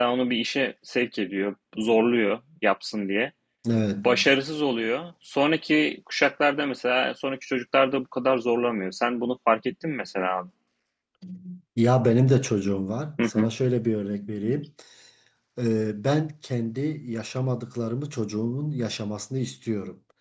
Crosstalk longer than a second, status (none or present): none